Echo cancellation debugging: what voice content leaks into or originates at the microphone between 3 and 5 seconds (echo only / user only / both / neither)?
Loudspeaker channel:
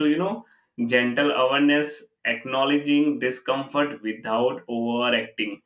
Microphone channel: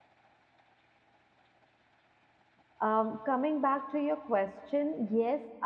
user only